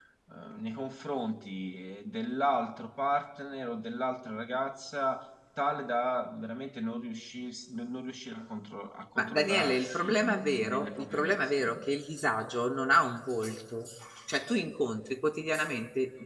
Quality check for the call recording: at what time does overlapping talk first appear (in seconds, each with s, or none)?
9.2 s